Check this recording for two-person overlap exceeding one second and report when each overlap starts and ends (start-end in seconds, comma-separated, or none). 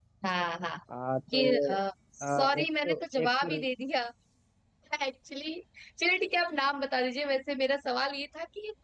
2.2-3.6